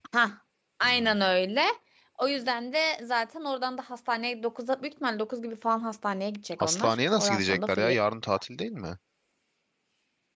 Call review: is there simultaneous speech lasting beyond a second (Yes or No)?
Yes